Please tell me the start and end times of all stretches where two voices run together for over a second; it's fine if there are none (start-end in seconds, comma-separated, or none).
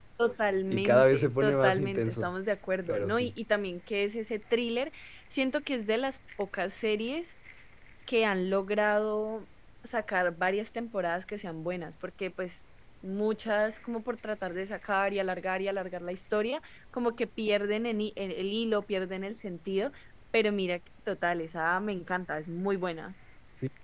0.7-2.3